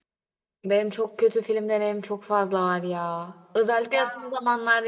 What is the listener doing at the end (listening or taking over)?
listening